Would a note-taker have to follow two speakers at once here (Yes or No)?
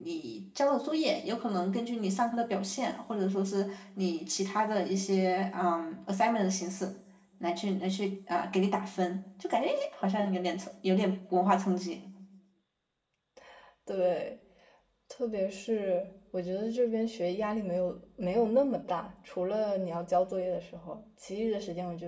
No